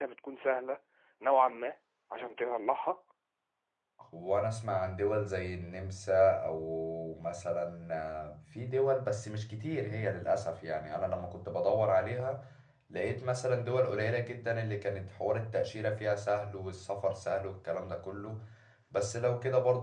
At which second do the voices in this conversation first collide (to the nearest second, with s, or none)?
none